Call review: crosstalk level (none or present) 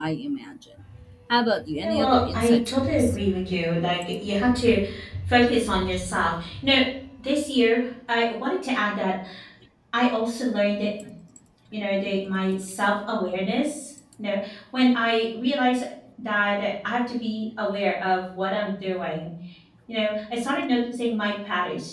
present